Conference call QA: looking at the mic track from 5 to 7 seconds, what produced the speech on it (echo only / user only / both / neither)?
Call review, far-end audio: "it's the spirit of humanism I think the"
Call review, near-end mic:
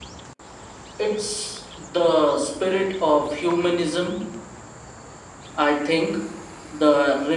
echo only